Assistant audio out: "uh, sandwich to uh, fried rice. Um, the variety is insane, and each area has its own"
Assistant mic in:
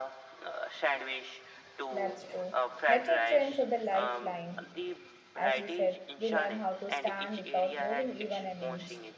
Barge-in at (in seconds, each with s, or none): 1.9 s